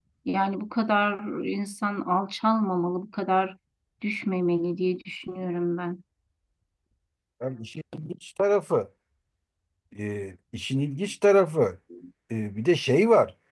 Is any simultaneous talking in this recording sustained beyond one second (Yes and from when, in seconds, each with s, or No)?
No